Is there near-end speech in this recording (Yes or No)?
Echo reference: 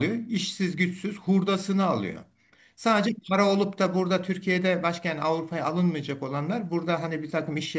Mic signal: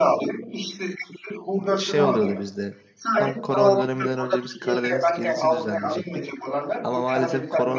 Yes